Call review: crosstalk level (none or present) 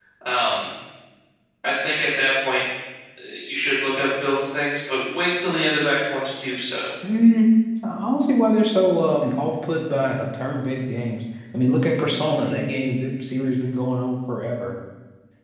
none